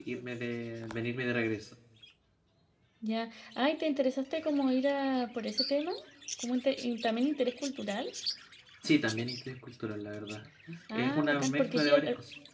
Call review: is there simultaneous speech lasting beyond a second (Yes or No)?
Yes